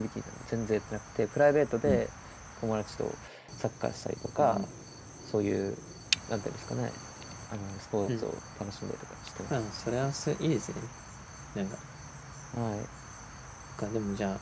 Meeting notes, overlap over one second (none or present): none